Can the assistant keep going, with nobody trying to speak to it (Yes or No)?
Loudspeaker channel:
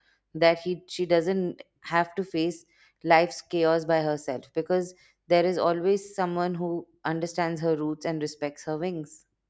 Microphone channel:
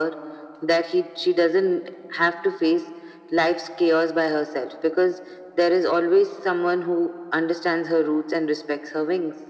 Yes